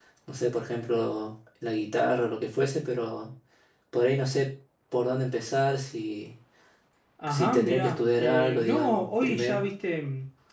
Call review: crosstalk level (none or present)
present